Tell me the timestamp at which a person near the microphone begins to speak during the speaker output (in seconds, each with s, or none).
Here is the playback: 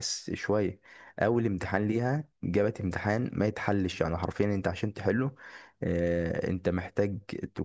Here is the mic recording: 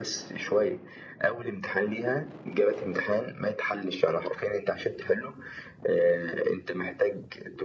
none